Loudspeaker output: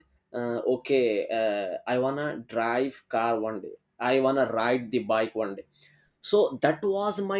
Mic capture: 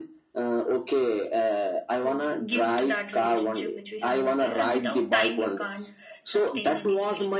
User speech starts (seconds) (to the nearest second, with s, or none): 2 s